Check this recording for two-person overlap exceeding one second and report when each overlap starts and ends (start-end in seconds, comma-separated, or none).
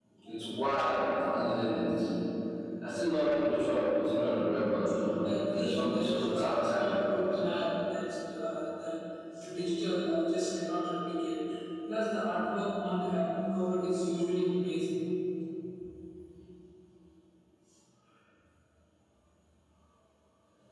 5.5-7.4